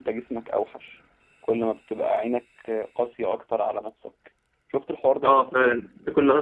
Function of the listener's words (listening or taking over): taking over